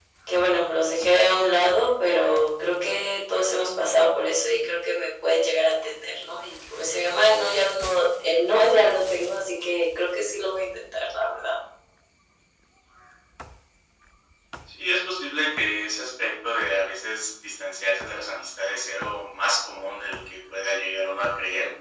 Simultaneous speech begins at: none

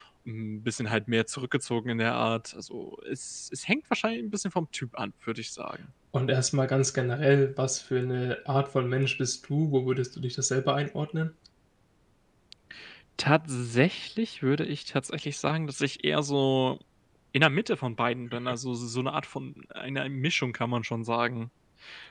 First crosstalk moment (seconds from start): none

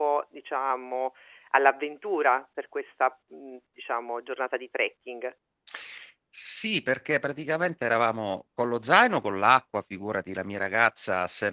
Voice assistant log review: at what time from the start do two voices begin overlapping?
none

